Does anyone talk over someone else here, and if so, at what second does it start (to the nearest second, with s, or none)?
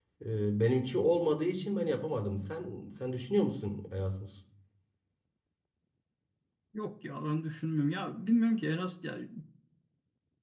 none